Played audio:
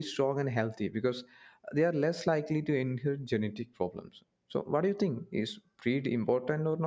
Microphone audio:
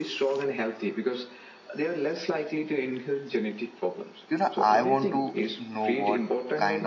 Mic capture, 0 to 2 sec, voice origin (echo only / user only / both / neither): echo only